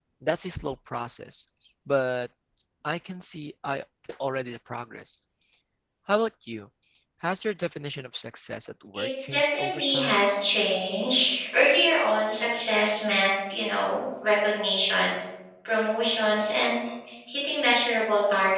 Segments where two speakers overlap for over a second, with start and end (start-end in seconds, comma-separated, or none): 8.9-10.2